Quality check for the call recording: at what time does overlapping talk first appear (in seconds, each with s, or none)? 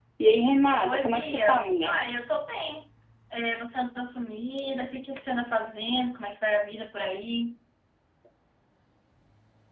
0.8 s